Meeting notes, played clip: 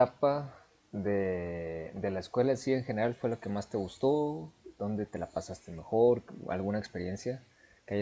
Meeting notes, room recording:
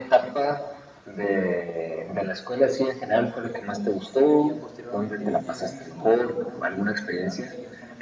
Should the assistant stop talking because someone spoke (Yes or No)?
Yes